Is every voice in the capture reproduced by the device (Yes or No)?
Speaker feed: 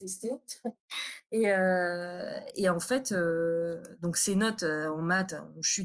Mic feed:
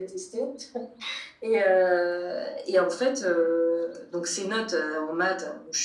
Yes